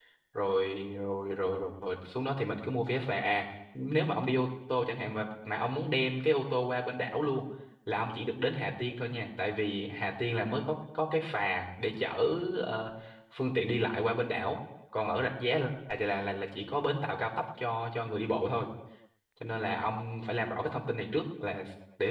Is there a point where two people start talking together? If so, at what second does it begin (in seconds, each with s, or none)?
none